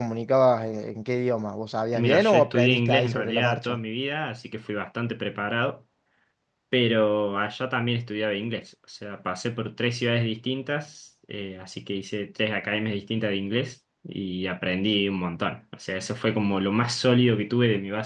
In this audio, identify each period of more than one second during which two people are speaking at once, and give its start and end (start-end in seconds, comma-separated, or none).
2.0-3.8